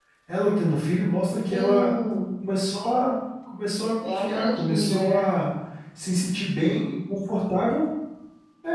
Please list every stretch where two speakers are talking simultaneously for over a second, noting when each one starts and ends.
4.0-5.2

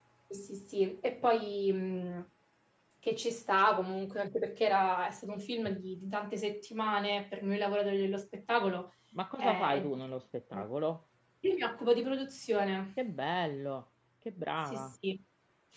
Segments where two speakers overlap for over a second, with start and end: none

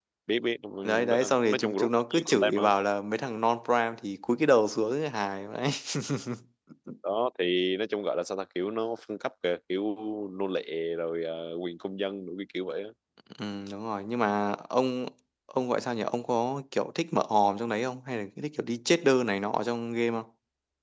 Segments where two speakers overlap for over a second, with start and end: 0.8-2.7

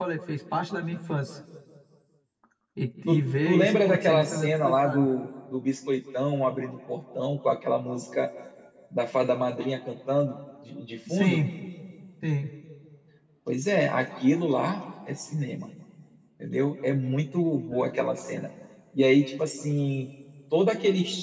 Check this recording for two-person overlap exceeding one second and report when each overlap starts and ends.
3.1-5.1

